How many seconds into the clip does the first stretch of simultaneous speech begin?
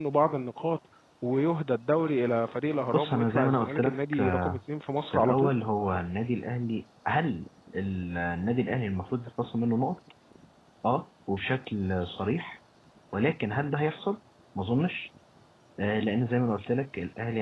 2.9 s

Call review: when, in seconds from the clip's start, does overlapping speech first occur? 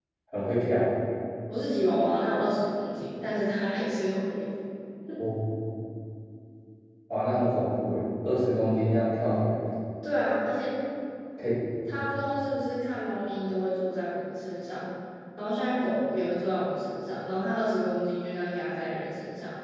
none

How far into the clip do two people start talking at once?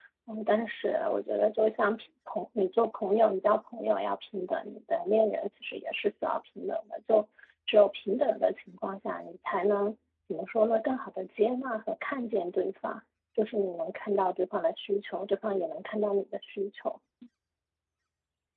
none

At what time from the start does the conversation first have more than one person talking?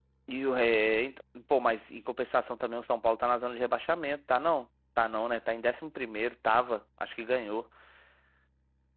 none

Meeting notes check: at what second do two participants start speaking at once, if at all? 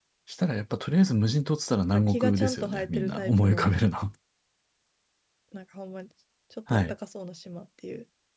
2.1 s

